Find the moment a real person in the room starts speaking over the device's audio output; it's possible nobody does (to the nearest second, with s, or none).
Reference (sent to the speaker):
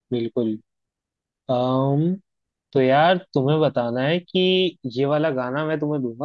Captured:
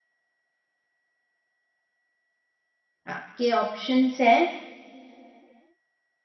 3 s